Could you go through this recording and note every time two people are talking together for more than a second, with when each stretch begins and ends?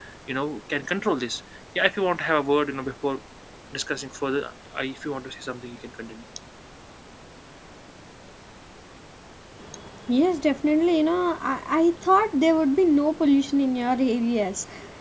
none

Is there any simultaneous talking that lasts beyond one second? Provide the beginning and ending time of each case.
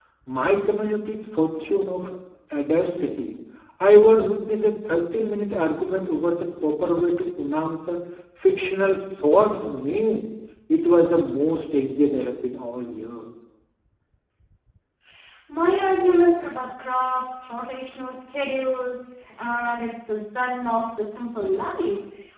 none

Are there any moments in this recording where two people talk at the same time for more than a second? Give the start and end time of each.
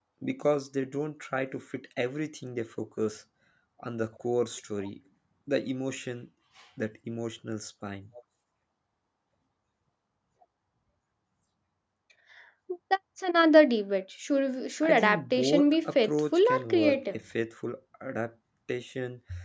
14.8-17.2

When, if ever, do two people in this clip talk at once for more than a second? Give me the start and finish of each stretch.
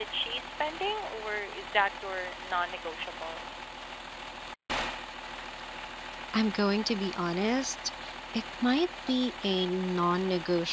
none

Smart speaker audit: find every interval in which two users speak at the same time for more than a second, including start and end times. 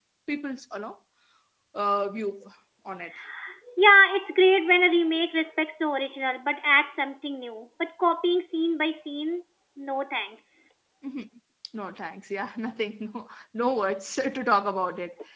none

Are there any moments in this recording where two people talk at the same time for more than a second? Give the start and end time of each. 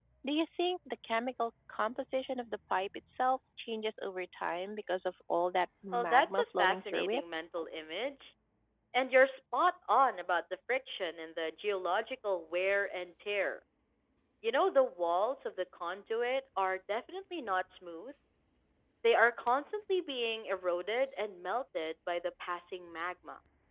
5.9-7.2

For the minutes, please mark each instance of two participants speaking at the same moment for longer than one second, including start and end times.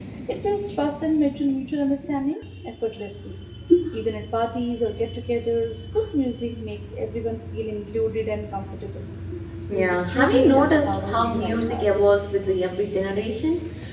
9.7-12.1

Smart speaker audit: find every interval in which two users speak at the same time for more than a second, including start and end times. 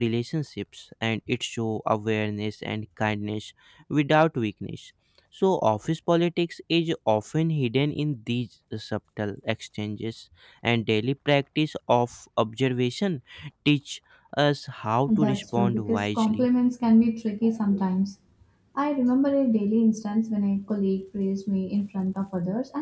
15.1-16.5

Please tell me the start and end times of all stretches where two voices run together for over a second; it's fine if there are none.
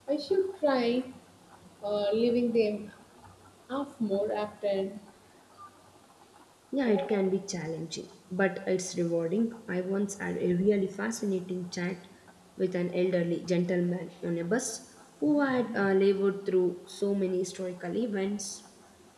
none

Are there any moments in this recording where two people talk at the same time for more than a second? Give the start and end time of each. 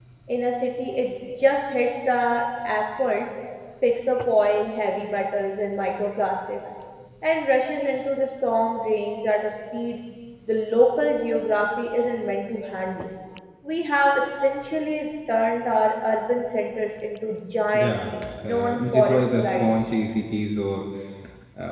18.5-19.7

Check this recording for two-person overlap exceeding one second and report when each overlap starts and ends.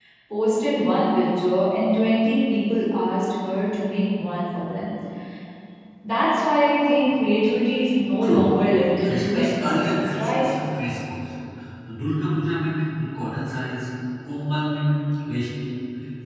9.0-10.5

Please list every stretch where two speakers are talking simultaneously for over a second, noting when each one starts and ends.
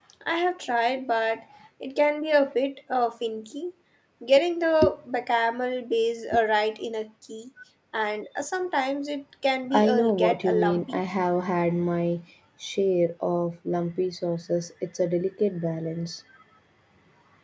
9.7-11.0

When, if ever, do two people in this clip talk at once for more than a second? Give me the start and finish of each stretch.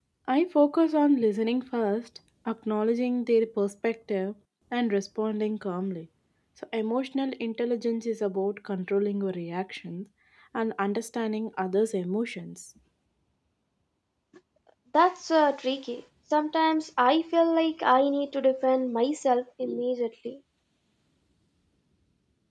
none

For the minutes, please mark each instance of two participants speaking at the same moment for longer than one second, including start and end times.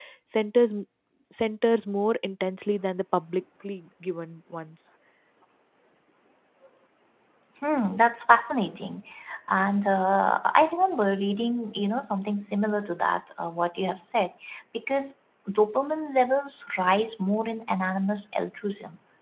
none

